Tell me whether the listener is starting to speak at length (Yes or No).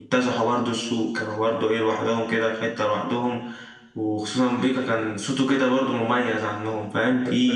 Yes